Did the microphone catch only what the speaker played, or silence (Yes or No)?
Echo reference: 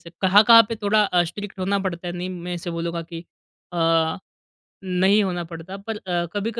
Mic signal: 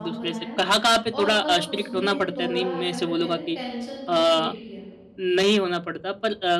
No